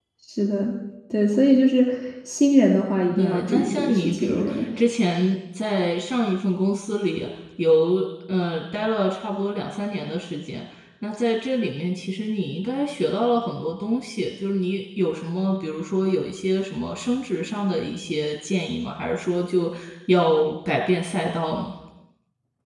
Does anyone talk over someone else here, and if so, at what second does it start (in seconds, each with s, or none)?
3.2 s